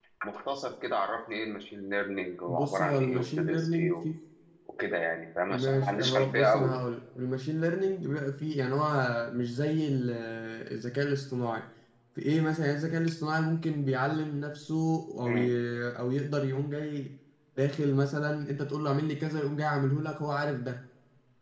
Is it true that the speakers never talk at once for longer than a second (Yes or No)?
No